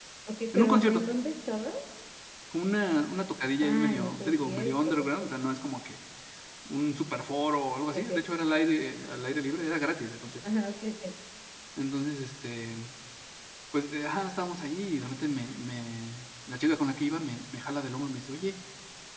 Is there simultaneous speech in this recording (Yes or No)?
Yes